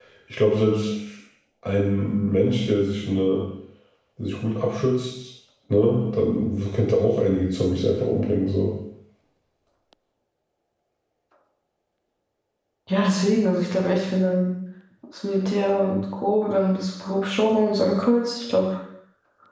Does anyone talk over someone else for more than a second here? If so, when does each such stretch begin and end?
none

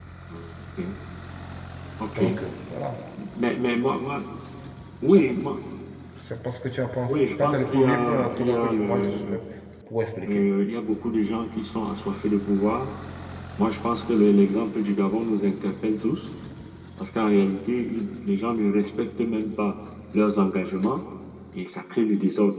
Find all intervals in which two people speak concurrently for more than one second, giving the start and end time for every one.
7.1-9.4

